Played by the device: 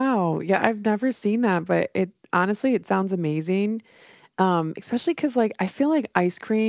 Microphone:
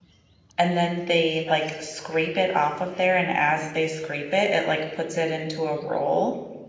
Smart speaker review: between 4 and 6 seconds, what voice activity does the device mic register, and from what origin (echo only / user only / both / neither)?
user only